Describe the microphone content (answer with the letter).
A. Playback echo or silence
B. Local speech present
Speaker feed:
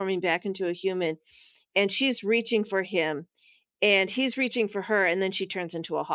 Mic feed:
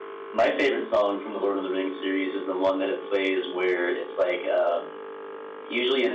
B